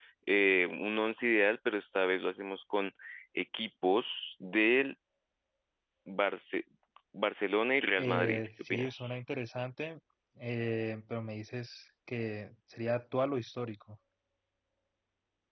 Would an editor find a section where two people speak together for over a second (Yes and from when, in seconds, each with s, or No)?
Yes, from 8.0 s